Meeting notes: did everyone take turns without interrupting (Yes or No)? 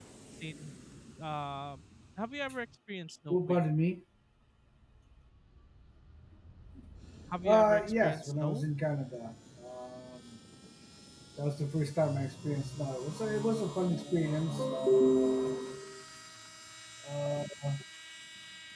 No